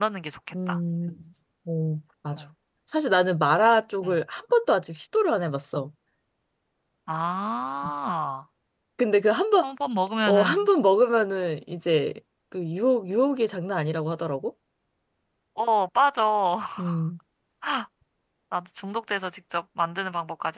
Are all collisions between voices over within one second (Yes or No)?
Yes